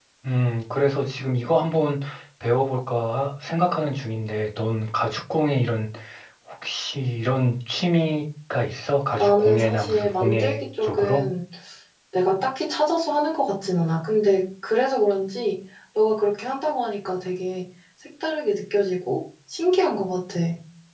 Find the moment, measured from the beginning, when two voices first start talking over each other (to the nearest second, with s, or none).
9 s